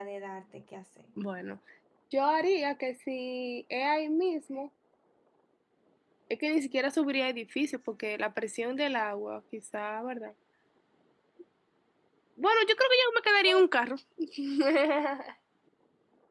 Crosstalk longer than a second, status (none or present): none